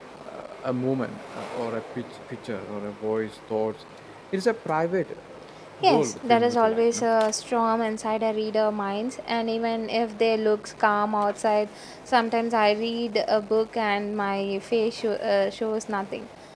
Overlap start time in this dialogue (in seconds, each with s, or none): 5.8 s